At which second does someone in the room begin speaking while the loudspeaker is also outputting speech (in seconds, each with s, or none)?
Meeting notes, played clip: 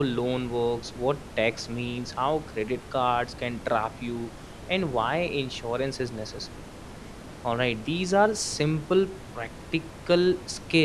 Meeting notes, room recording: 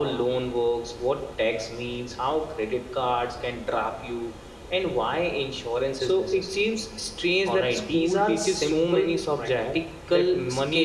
6.0 s